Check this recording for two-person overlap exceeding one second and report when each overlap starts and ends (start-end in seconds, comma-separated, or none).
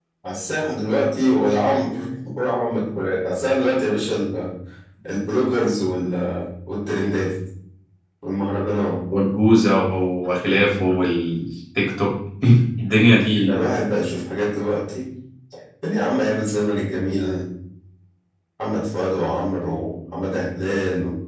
none